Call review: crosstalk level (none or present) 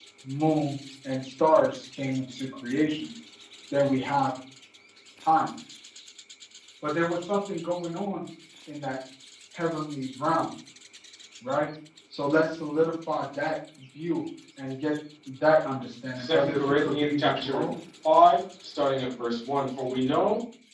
present